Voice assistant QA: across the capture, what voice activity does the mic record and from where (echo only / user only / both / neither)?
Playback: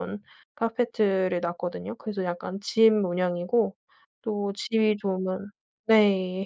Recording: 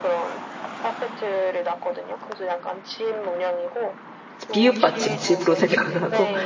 both